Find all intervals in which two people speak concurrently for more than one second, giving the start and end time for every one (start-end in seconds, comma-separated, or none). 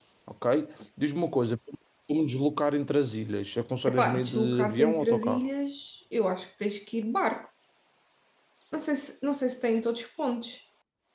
3.9-5.5